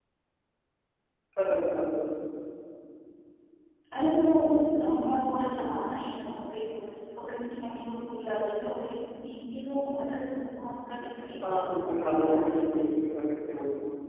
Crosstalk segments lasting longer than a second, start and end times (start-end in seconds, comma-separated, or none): 11.4-12.8